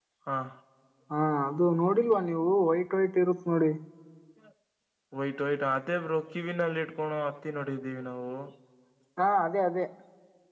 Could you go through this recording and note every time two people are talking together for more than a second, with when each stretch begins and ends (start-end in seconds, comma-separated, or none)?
none